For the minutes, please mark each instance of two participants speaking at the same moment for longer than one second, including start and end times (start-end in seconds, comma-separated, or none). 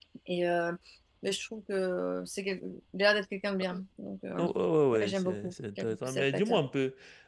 5.0-6.6